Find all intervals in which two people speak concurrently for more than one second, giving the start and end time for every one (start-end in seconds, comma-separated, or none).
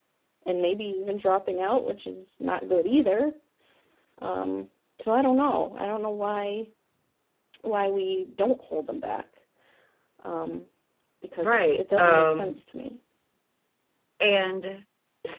11.4-12.6